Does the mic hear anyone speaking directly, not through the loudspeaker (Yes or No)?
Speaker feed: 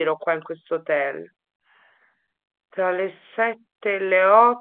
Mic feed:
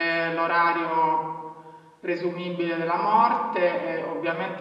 Yes